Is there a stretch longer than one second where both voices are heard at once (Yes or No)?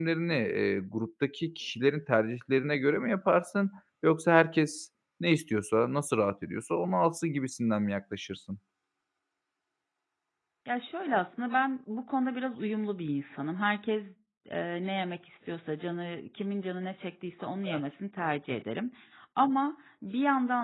No